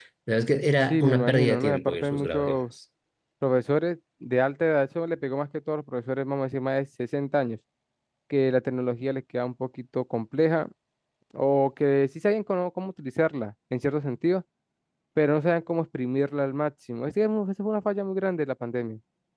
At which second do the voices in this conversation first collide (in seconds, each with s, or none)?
0.9 s